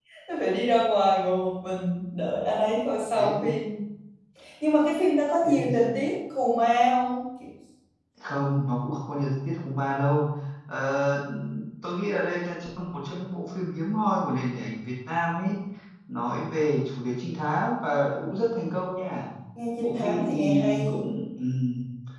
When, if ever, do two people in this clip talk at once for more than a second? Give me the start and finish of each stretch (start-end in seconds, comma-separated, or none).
19.8-21.1